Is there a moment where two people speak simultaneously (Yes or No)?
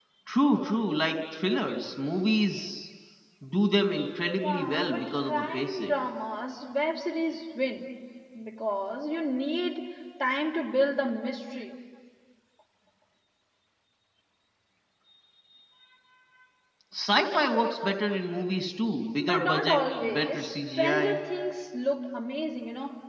Yes